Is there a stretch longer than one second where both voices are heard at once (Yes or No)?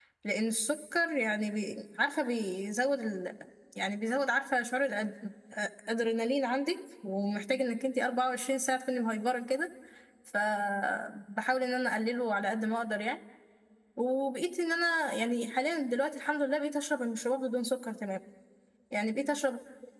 No